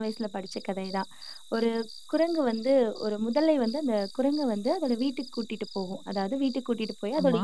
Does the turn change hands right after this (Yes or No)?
No